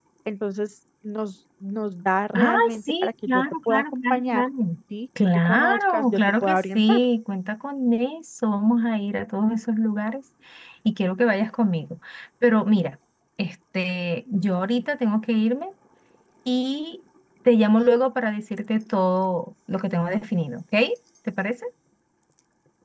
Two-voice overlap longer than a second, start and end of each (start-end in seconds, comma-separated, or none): 2.3-4.4, 5.3-7.0